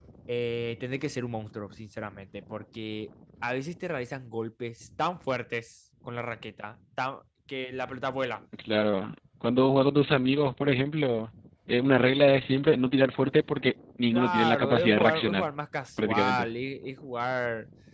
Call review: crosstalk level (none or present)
present